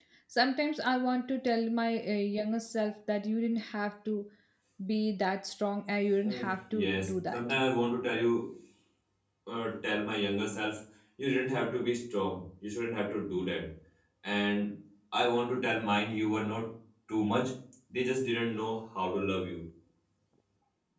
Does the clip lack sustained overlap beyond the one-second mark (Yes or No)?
No